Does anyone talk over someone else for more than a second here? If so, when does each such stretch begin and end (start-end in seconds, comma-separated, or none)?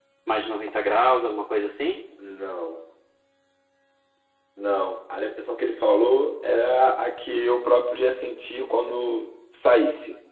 none